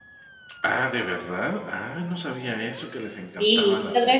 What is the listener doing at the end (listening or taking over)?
taking over